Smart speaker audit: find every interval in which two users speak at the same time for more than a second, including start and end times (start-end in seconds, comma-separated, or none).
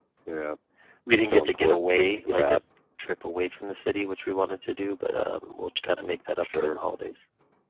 1.1-2.6